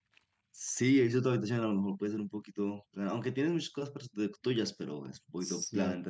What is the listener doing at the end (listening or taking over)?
taking over